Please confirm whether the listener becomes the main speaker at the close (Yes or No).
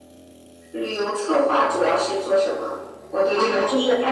Yes